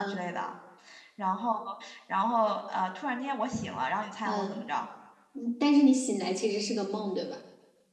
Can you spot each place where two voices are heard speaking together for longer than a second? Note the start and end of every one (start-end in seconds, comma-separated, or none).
none